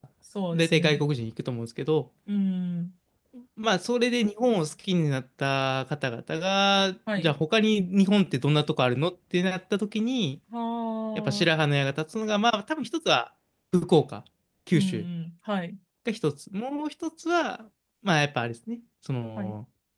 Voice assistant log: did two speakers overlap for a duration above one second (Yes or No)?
No